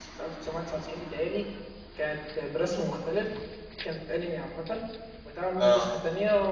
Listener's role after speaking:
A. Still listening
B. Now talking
A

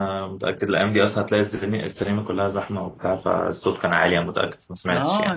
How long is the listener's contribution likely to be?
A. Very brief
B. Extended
B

